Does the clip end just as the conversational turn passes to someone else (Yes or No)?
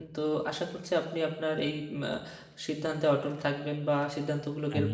No